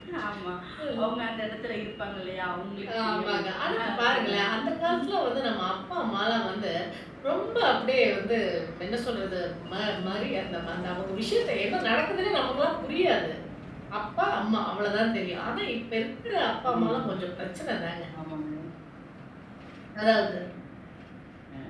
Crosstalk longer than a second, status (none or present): present